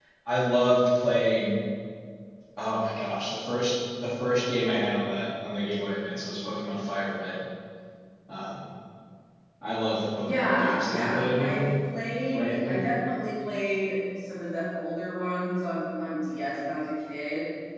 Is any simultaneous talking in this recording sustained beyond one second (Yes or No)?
Yes